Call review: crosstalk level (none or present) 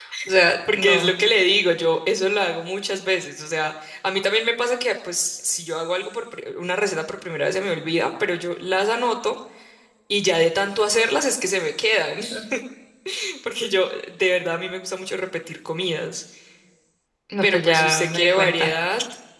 present